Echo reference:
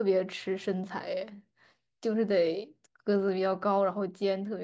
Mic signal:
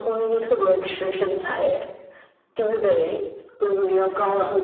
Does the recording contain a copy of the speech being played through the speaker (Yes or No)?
Yes